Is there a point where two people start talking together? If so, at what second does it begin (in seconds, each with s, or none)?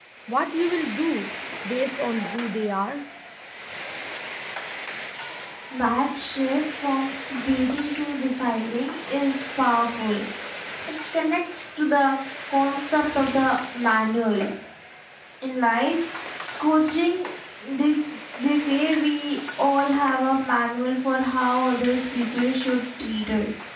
none